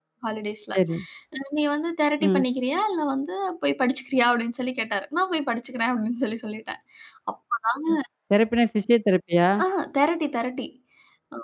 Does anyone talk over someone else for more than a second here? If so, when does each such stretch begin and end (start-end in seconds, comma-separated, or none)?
none